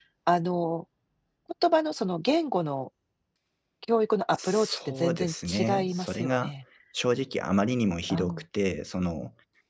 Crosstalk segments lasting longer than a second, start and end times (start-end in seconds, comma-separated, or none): 4.3-6.5